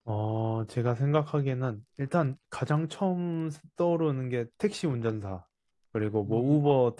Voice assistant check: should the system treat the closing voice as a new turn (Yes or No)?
No